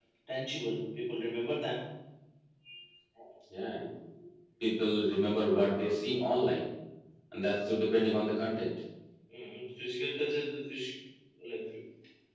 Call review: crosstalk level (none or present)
none